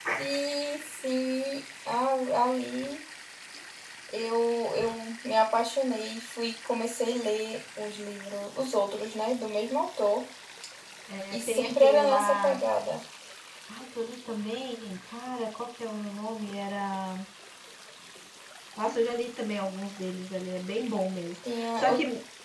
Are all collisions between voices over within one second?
No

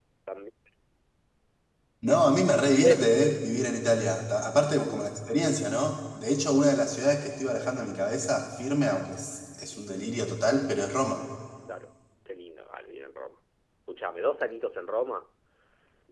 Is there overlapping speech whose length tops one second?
No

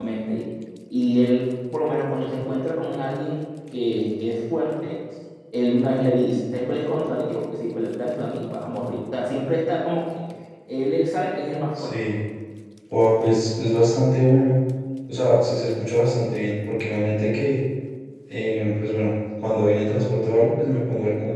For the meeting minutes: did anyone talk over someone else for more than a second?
No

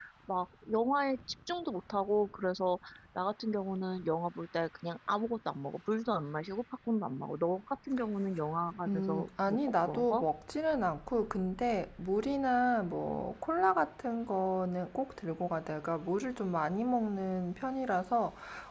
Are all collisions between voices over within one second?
No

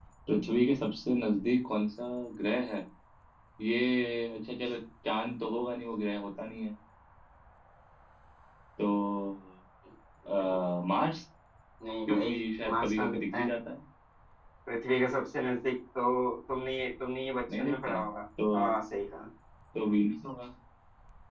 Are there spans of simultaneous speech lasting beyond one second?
Yes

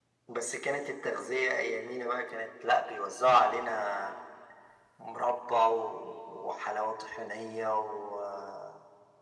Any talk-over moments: No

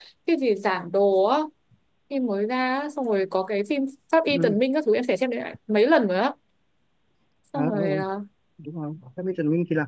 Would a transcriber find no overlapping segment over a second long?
Yes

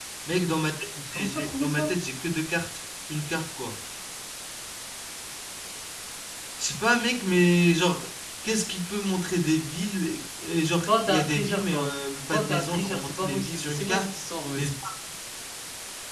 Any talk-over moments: Yes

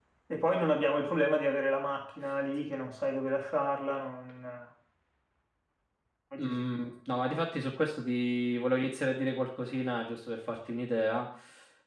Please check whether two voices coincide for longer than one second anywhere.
No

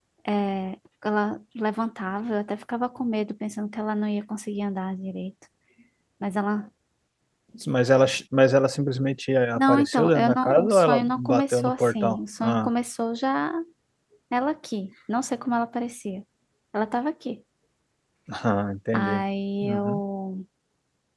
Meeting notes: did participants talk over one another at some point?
Yes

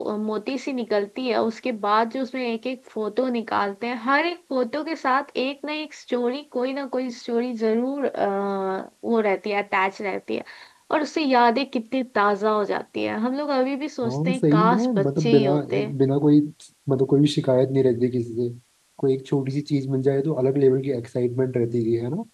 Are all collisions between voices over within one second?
No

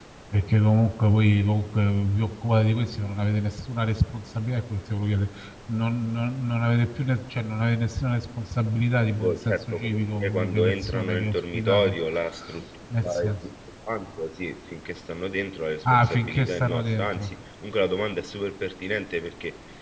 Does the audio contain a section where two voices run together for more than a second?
Yes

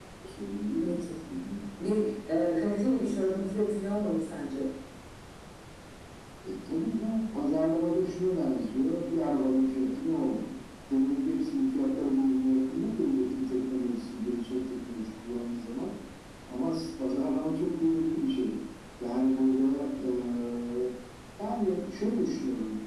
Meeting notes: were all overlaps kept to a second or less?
Yes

